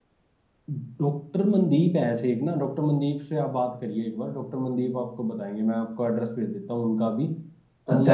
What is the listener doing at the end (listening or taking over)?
taking over